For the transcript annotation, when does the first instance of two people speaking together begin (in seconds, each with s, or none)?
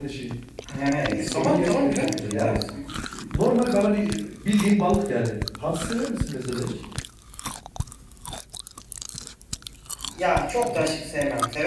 1.2 s